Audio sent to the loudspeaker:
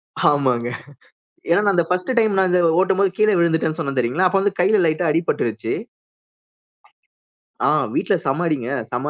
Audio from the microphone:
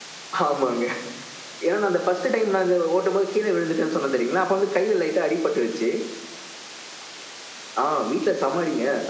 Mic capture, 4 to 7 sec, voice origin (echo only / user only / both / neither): echo only